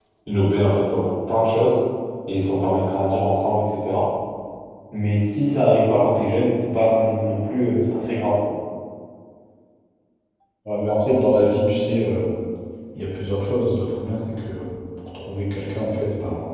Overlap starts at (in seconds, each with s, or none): none